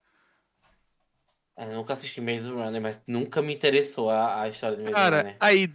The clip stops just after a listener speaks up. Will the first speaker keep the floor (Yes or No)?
No